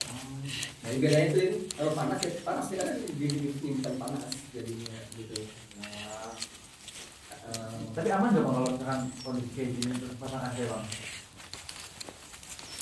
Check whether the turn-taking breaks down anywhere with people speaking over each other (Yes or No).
No